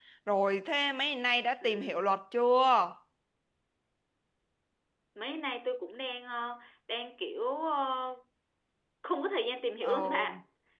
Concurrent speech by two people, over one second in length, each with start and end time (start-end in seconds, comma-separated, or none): none